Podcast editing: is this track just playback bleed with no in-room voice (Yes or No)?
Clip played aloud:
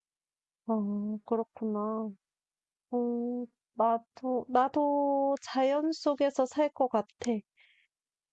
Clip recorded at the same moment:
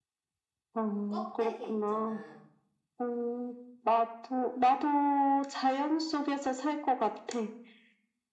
No